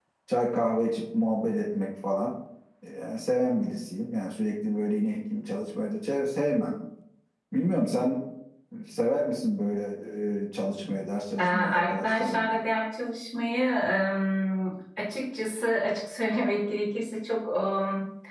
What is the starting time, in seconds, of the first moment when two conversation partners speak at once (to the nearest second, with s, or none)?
11 s